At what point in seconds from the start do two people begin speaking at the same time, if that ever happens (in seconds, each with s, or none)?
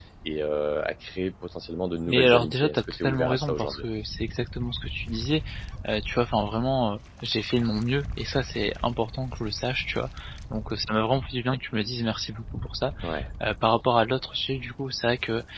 2.1 s